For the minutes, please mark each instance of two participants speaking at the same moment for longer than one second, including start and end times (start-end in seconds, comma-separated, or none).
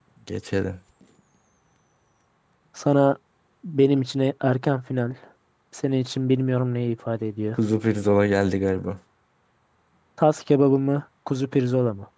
none